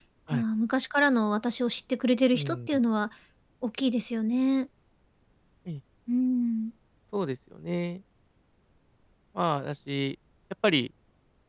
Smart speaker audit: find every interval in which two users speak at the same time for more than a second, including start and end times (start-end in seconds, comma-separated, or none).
none